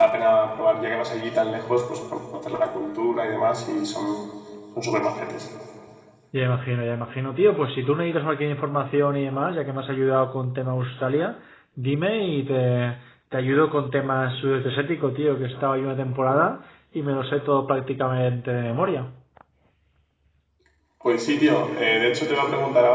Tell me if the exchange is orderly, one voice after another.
Yes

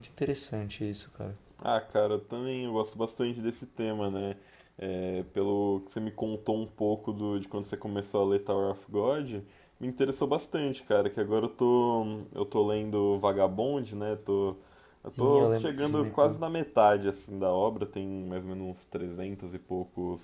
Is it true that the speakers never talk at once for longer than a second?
No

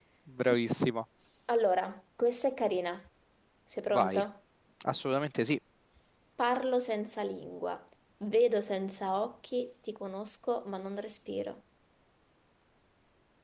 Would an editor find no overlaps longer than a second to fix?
Yes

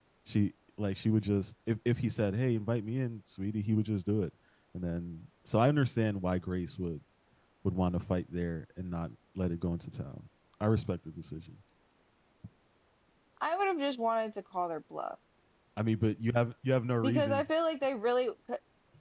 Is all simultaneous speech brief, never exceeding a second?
Yes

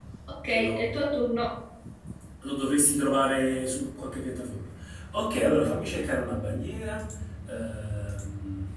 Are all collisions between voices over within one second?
Yes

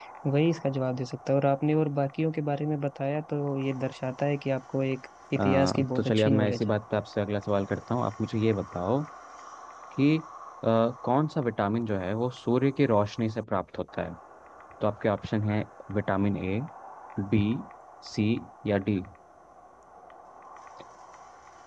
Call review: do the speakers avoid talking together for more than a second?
No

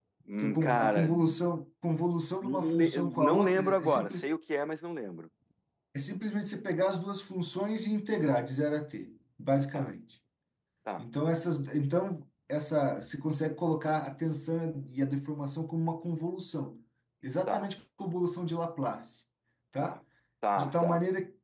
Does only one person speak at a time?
No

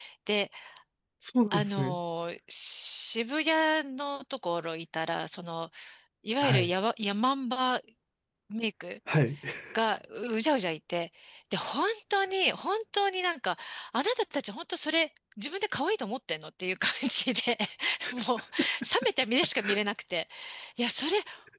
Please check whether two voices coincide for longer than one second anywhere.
No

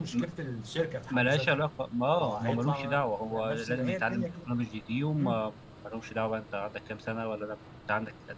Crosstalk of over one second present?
Yes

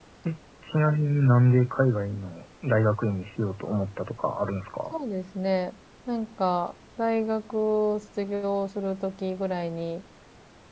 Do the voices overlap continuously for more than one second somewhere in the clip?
No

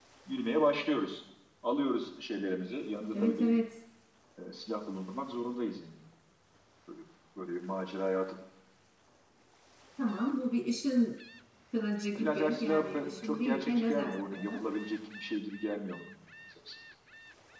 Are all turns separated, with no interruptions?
No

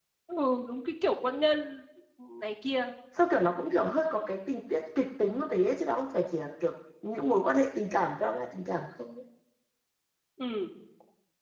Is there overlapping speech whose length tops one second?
No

